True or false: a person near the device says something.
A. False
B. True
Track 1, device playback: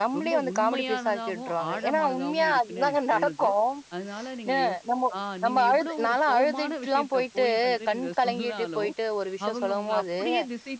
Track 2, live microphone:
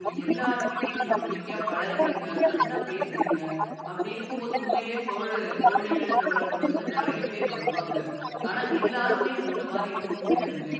B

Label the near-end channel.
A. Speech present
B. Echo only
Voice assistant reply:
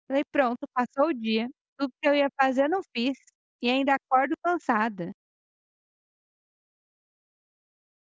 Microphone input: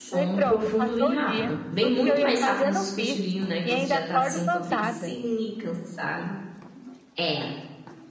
A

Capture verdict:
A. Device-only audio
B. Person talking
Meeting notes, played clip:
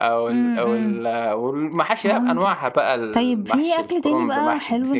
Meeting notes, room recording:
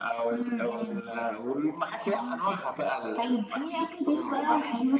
A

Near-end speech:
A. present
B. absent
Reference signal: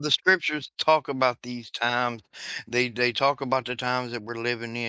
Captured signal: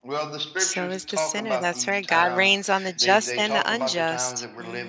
A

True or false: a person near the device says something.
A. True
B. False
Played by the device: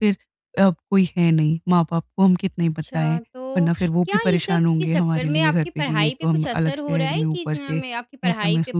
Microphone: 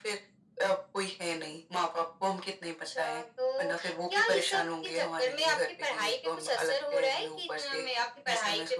B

